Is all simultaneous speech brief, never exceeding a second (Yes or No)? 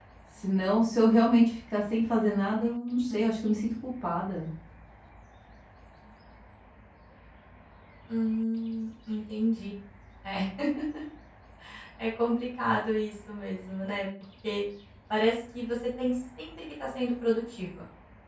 Yes